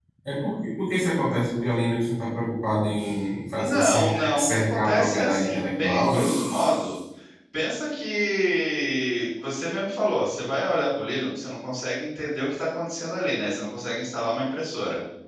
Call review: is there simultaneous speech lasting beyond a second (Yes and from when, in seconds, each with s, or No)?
Yes, from 3.5 s